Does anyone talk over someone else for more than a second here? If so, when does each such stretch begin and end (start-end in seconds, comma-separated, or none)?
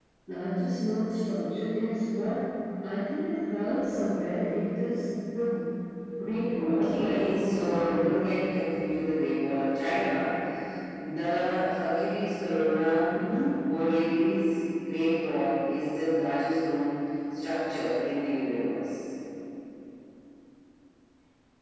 6.6-8.1